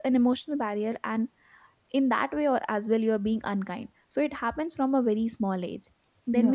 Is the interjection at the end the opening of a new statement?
No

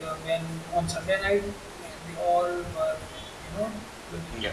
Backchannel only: Yes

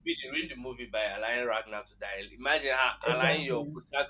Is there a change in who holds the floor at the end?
No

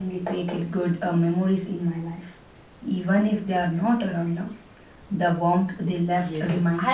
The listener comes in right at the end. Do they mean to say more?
Yes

